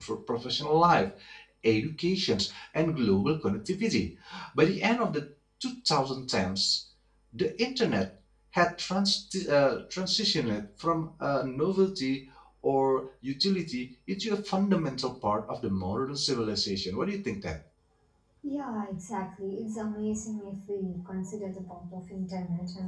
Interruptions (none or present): none